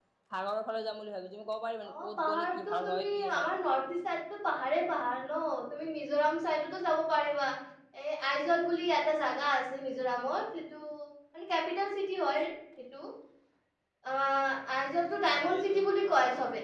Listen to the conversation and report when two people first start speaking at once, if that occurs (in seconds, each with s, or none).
1.9 s